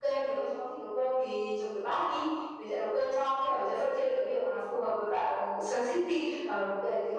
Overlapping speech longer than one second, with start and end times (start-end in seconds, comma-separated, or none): none